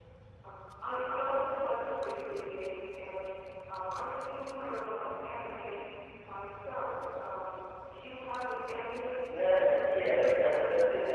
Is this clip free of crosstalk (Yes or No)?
No